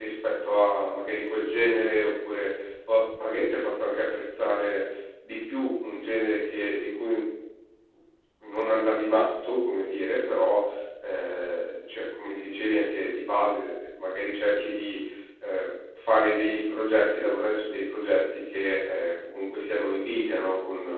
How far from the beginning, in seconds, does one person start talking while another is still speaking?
none

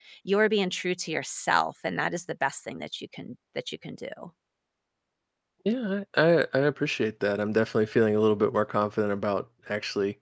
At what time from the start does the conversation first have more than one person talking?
none

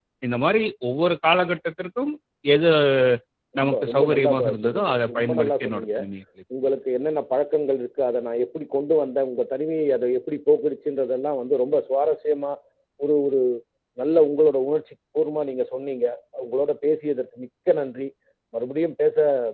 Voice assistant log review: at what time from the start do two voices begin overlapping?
3.6 s

